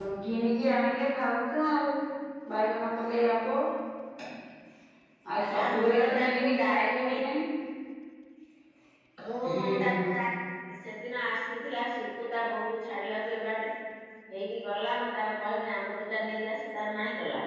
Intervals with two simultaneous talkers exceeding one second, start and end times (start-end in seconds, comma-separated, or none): 5.6-7.2